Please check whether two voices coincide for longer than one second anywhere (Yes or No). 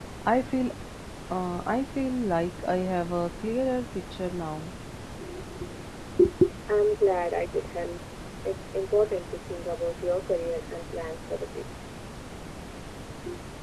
No